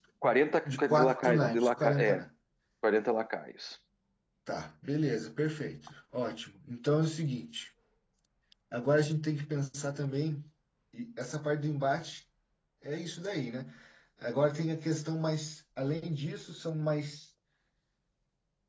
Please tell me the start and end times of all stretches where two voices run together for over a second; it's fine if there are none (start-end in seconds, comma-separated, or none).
0.7-2.2